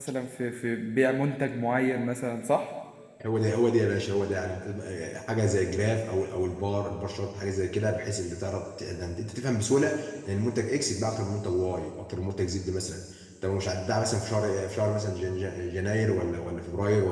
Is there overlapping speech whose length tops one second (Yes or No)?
No